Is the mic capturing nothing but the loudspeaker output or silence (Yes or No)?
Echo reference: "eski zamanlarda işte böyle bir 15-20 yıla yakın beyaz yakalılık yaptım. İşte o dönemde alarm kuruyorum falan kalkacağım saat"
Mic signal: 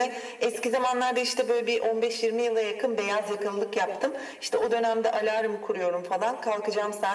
Yes